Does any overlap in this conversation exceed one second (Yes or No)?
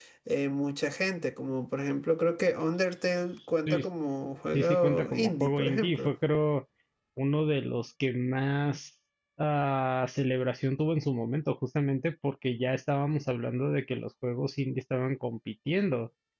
Yes